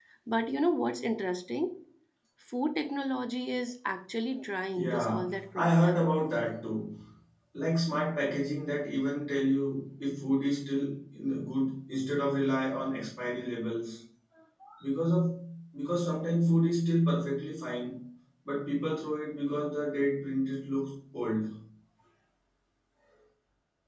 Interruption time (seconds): 4.8 s

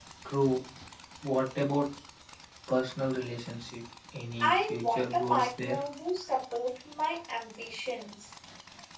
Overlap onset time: 4.4 s

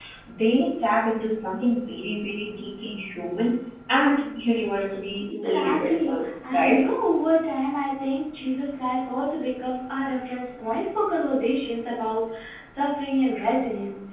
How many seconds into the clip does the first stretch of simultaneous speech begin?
5.3 s

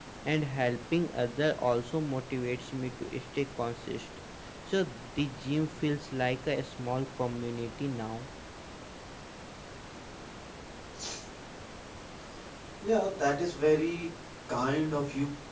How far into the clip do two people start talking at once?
none

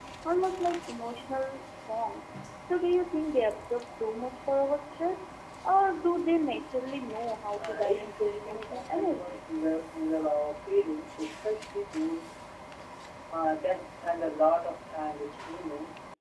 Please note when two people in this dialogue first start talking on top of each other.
7.6 s

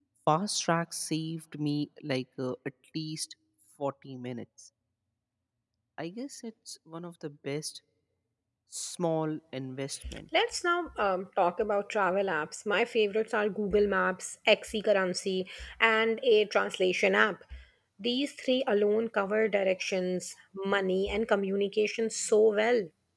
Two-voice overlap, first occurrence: none

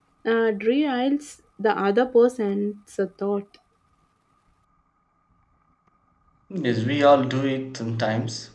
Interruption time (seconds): none

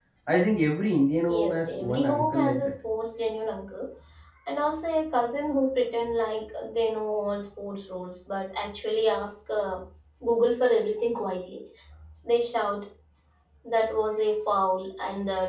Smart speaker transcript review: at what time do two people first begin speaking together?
1.3 s

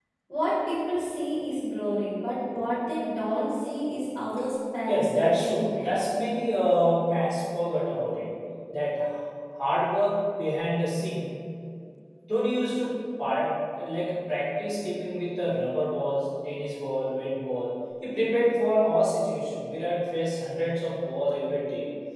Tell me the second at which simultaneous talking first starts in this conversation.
4.9 s

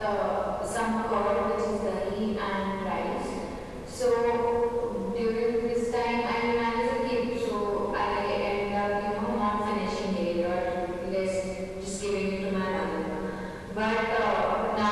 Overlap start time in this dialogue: none

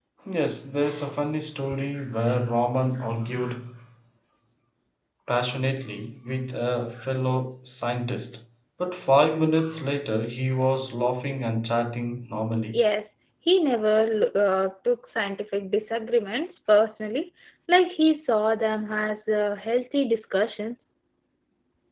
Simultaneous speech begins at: none

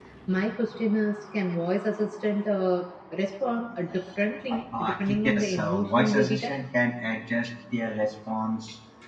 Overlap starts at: 4.5 s

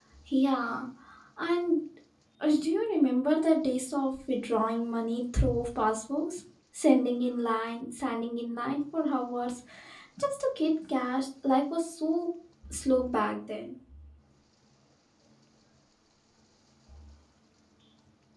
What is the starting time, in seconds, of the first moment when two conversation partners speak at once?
none

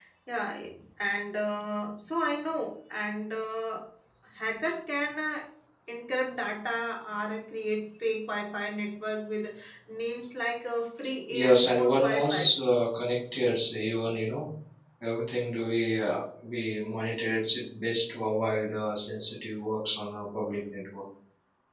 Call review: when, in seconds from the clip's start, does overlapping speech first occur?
11.3 s

